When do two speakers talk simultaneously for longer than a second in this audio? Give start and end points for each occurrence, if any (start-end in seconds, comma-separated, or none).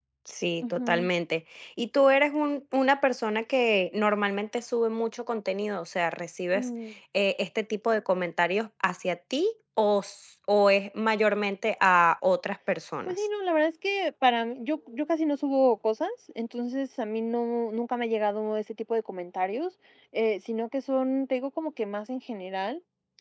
none